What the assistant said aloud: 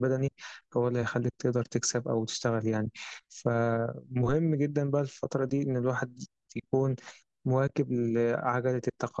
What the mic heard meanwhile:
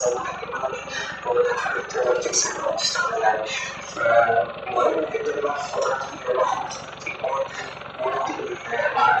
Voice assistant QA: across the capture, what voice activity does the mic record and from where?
echo only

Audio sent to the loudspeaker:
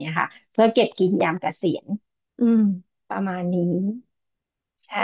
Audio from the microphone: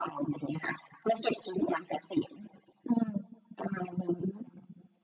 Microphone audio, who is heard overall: echo only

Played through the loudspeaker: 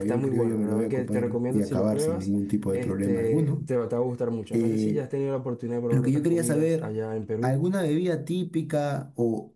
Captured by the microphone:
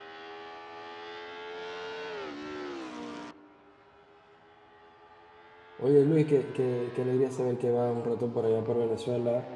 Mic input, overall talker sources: user only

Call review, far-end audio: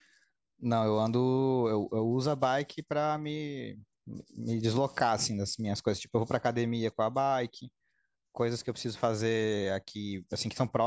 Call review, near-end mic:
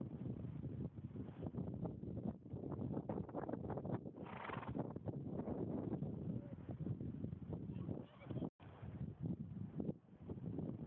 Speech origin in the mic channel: neither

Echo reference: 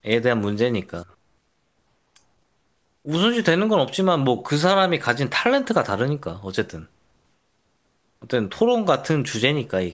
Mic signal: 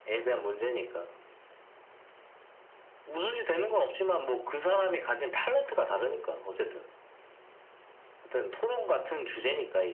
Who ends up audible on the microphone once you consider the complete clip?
echo only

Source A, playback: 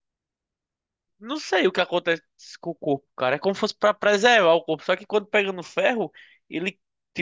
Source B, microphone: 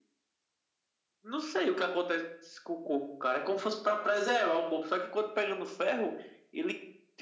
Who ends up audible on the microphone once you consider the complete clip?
echo only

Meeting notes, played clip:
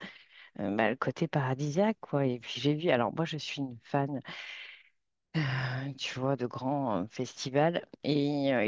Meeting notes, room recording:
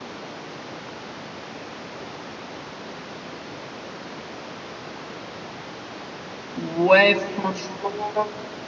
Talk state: user only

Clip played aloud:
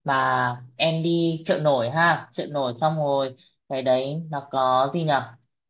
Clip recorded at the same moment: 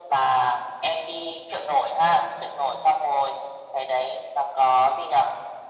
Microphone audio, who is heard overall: echo only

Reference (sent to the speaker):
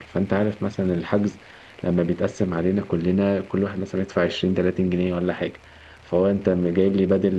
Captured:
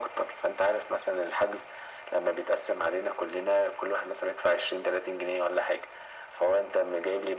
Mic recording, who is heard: echo only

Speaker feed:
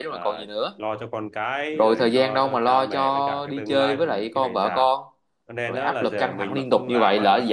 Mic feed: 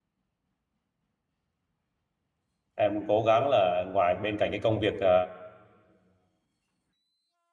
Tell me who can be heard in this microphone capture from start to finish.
user only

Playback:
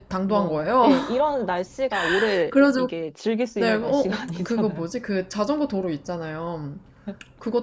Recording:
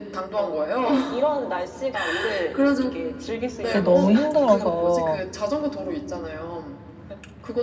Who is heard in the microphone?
both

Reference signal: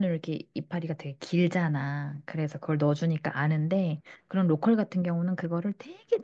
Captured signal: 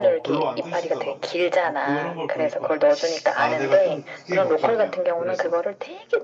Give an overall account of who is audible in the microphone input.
both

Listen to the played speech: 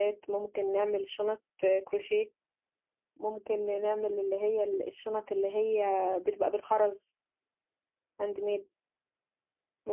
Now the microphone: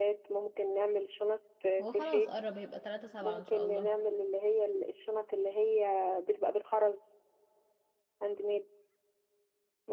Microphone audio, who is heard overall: both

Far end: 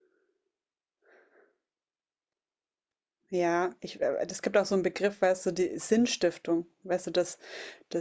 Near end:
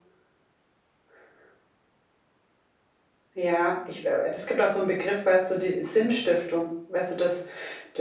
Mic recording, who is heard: echo only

